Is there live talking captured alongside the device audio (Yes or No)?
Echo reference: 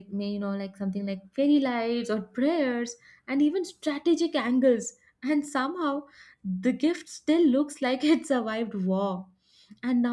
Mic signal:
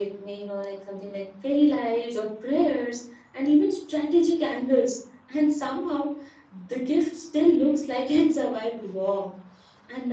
No